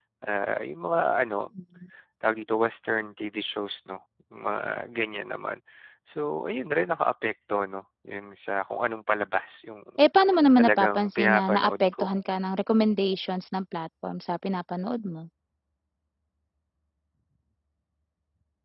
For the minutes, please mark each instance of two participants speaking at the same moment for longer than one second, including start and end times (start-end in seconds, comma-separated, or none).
10.6-12.0